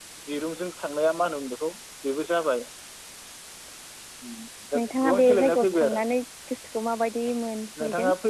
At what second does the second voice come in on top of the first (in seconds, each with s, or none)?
4.8 s